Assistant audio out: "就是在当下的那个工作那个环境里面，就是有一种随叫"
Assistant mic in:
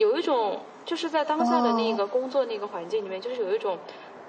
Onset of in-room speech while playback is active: 1 s

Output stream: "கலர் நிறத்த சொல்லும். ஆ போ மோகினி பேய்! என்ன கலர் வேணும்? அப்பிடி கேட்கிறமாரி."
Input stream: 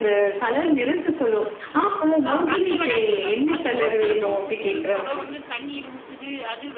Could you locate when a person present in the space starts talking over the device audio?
2 s

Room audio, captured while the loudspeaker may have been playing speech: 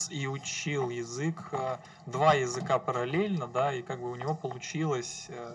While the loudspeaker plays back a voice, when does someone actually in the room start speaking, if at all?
none

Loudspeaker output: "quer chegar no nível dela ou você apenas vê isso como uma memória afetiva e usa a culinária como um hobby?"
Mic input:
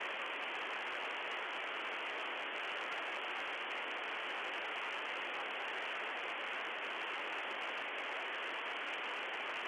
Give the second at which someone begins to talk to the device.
none

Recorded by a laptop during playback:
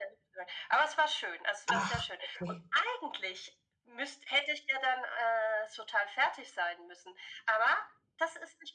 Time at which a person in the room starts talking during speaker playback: 2 s

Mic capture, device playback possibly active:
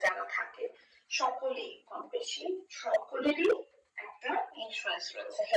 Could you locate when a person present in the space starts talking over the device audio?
none

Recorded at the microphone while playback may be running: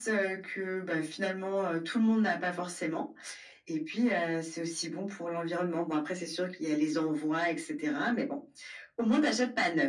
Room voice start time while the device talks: none

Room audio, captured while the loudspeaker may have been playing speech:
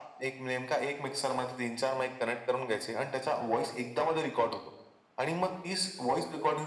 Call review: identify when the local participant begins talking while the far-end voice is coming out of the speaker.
none

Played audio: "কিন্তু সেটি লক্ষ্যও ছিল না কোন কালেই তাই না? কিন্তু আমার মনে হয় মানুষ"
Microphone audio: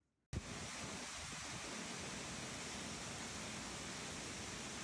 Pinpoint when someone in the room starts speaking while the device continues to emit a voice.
none

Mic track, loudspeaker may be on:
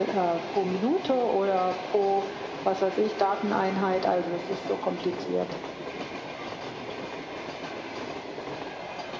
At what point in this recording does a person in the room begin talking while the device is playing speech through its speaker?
none

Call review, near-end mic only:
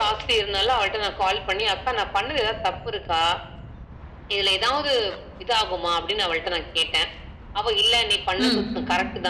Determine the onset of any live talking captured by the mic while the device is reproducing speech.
8 s

